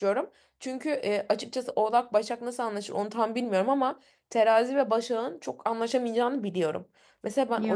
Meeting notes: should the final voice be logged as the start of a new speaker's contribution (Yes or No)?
No